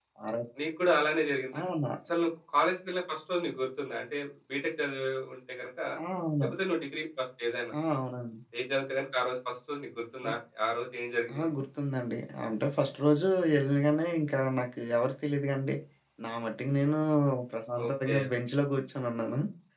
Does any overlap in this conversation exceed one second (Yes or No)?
No